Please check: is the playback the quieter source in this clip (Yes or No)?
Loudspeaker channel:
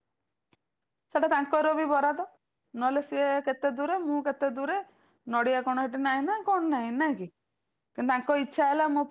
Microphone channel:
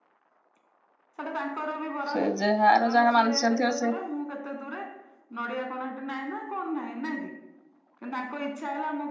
Yes